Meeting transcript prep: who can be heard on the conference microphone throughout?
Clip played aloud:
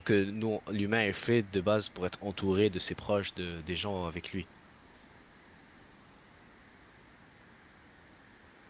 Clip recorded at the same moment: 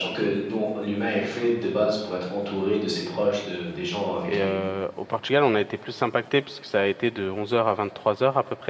both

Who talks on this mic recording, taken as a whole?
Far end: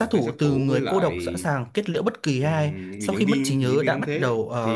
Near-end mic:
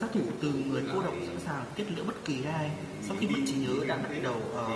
echo only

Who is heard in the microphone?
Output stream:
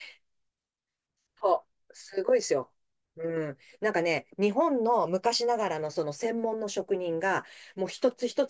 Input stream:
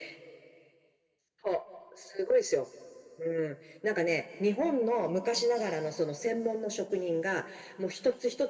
echo only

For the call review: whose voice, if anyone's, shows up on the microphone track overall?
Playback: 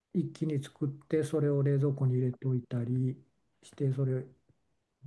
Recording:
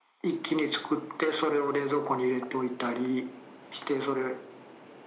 echo only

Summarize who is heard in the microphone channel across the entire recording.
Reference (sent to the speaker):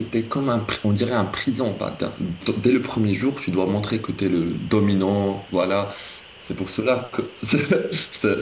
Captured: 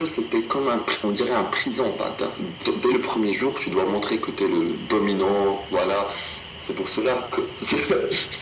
echo only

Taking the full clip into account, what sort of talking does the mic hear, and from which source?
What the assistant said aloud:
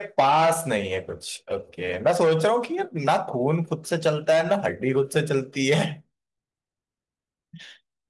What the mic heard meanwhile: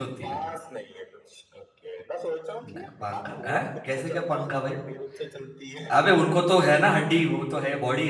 both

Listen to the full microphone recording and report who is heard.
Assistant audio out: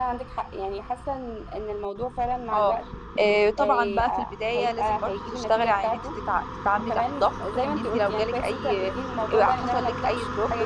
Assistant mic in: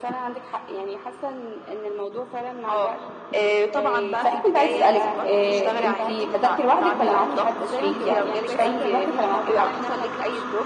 both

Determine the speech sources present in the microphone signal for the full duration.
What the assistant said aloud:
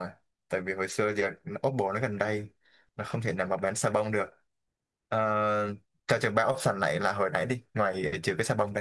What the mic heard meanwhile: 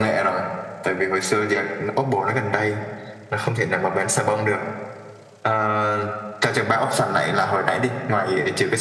echo only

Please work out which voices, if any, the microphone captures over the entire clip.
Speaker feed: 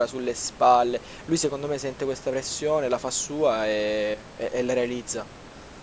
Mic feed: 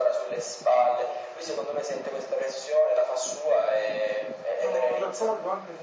both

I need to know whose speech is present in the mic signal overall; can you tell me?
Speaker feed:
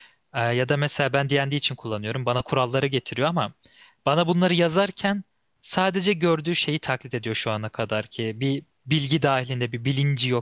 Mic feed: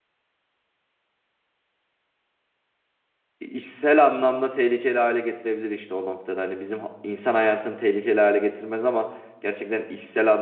user only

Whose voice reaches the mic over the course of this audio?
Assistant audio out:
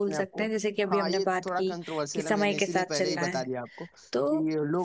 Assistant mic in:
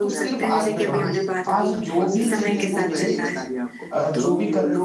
both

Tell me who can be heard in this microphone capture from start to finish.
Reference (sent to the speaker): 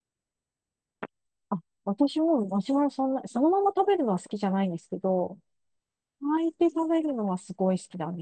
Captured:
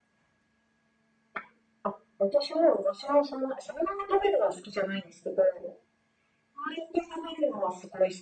echo only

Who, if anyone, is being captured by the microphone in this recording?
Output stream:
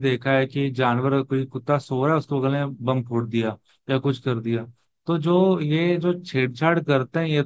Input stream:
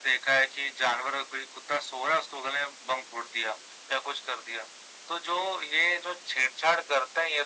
echo only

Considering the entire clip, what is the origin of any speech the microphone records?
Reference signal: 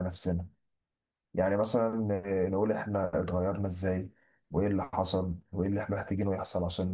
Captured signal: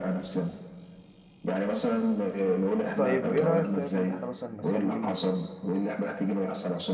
both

